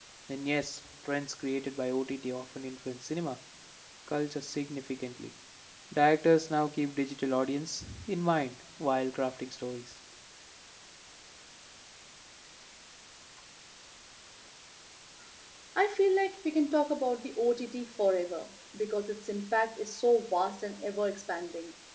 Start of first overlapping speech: none

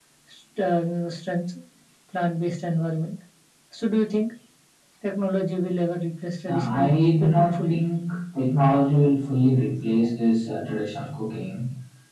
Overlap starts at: 6.5 s

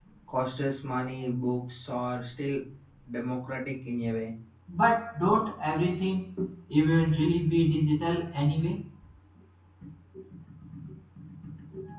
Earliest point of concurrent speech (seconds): none

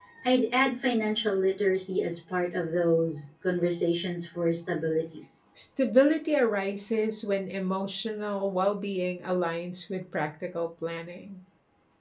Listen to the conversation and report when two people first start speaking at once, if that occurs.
none

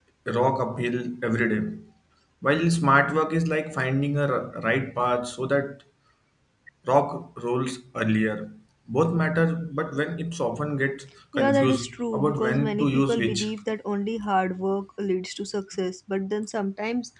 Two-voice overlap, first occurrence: 11.3 s

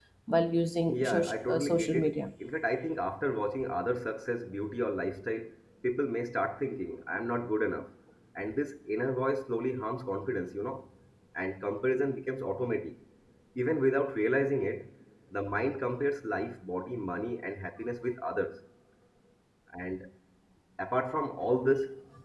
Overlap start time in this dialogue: 0.9 s

